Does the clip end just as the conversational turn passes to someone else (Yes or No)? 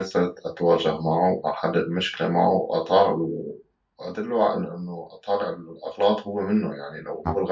No